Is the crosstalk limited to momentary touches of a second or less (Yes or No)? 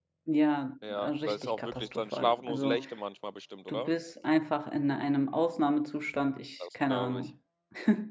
No